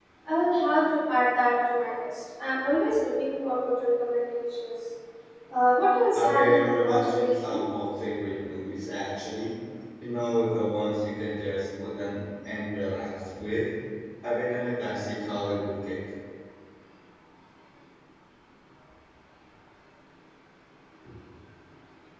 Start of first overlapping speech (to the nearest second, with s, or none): 6 s